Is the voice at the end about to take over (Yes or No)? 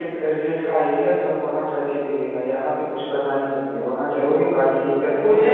Yes